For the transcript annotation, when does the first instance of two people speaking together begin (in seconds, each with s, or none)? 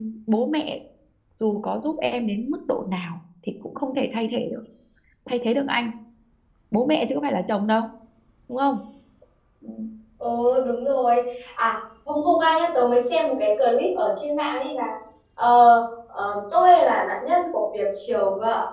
none